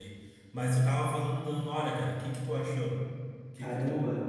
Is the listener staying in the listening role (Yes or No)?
No